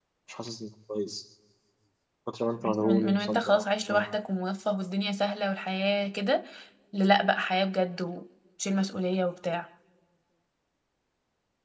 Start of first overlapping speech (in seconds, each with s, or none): 2.6 s